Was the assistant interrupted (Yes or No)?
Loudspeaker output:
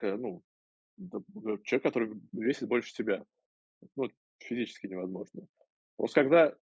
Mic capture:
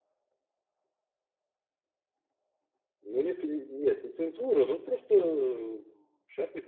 Yes